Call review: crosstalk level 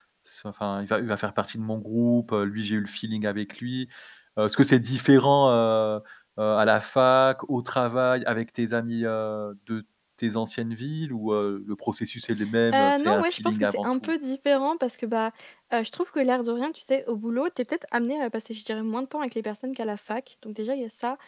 present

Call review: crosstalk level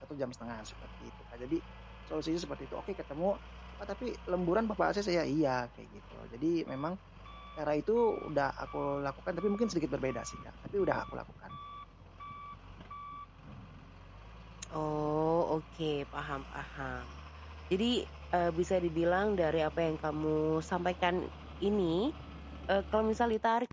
none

